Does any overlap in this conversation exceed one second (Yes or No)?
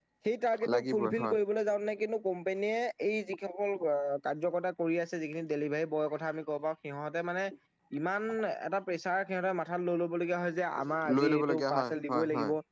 Yes